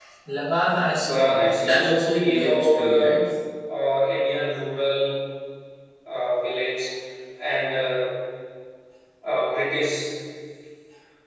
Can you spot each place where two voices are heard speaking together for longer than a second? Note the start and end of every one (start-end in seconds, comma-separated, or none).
1.1-3.1